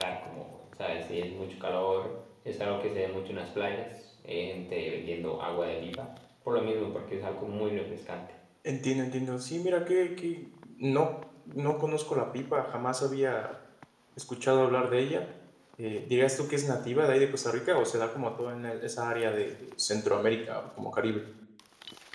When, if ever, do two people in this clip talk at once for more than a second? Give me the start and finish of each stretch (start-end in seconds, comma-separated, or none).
none